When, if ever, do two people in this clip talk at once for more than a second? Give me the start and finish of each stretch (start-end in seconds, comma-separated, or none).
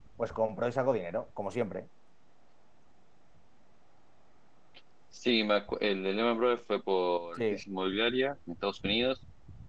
none